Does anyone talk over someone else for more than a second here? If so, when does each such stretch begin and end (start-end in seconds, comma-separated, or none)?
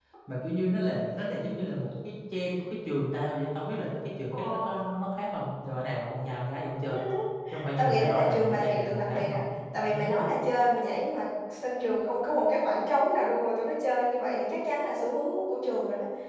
7.8-9.4